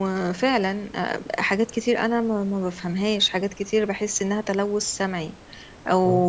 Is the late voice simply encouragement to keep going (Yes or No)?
Yes